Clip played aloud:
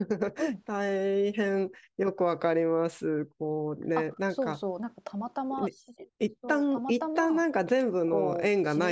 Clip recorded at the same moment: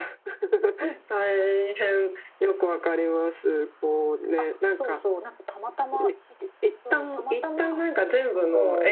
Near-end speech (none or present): none